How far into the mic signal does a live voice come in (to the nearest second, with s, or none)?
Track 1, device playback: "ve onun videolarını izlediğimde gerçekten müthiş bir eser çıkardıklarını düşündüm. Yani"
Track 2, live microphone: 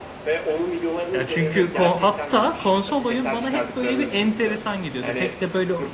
1 s